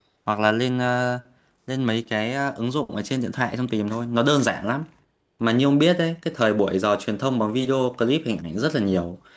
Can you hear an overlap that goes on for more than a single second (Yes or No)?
No